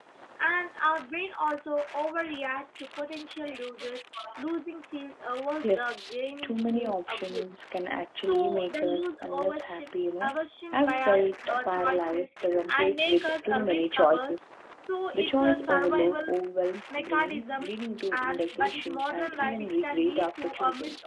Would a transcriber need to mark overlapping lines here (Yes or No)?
Yes